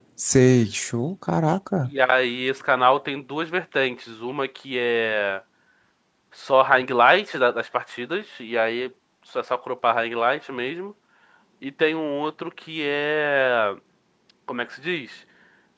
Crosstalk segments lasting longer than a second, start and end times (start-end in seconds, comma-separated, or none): none